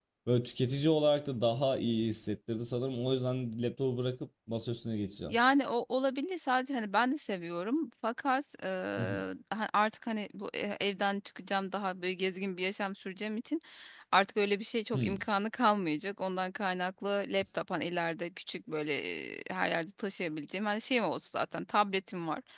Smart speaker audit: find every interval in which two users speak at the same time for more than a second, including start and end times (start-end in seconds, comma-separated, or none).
none